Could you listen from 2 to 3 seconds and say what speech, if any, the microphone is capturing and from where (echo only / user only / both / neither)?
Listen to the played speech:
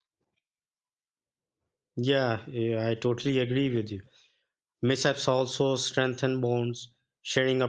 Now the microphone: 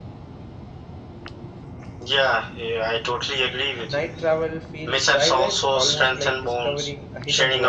echo only